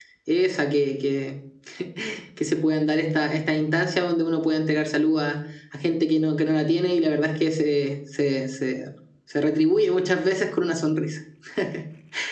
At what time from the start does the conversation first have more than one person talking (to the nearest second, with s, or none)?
none